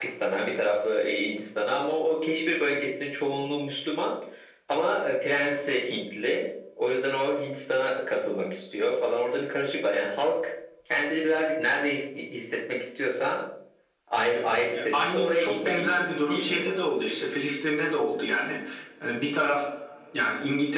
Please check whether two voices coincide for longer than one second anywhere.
Yes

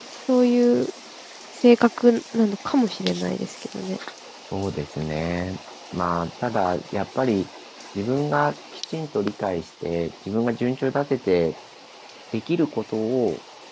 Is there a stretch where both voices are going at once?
No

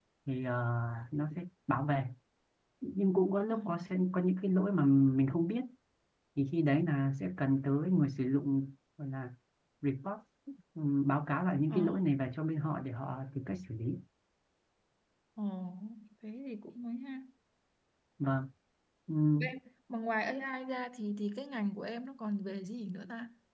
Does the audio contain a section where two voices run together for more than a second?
No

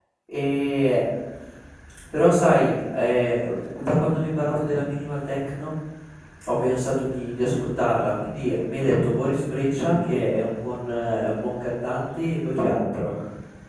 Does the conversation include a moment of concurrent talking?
No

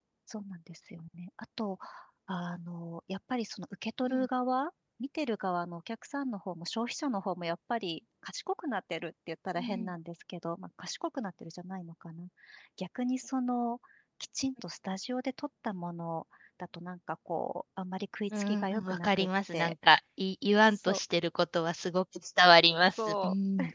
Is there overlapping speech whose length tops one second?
Yes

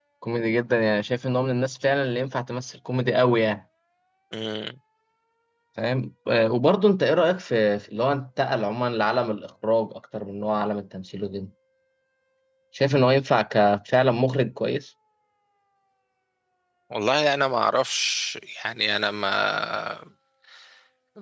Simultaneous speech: No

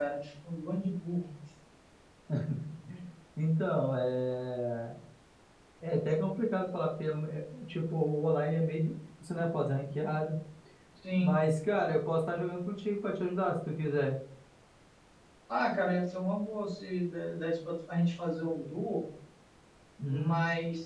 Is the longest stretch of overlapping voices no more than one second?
Yes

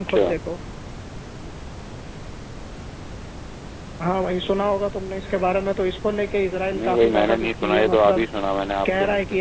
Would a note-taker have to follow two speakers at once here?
Yes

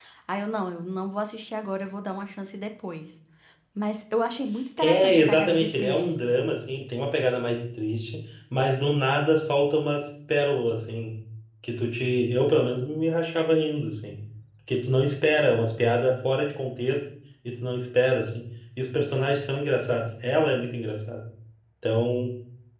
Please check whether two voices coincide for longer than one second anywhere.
Yes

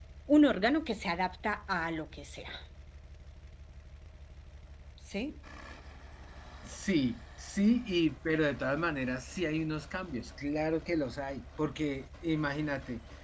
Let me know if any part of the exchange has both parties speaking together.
No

